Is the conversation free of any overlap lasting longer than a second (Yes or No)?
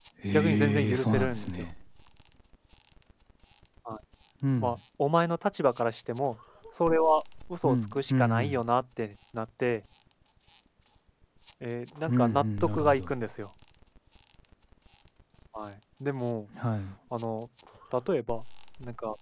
No